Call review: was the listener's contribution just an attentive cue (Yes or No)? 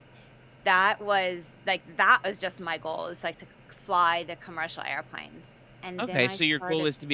No